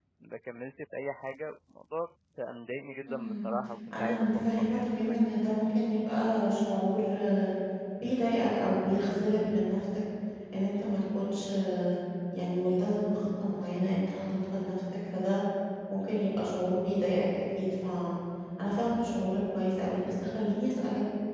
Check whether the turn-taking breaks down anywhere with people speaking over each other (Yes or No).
Yes